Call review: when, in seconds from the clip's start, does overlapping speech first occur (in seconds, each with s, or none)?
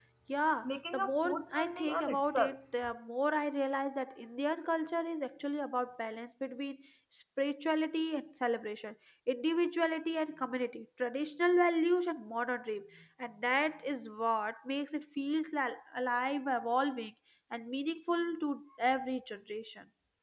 0.6 s